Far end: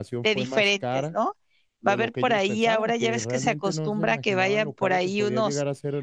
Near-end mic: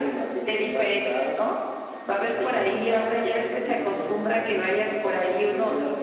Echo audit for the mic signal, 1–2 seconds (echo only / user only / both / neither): echo only